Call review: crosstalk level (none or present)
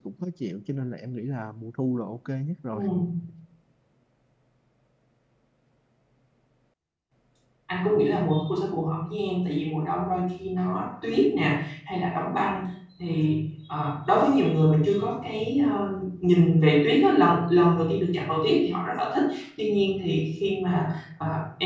none